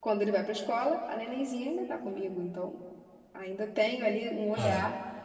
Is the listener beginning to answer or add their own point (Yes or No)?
No